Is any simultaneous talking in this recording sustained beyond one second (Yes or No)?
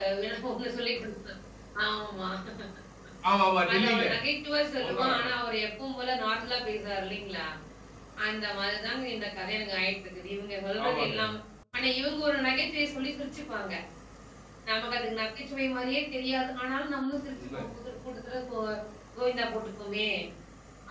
No